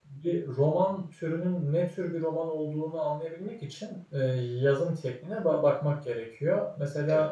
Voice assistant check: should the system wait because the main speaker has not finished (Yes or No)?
Yes